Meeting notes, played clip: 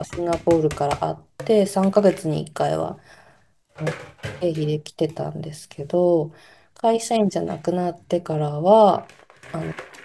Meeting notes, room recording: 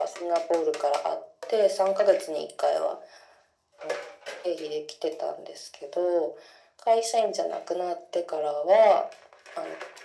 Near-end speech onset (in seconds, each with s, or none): none